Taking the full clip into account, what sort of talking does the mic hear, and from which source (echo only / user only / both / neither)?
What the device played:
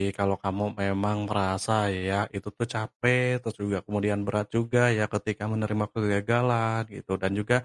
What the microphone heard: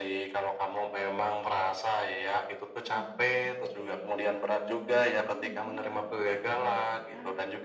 both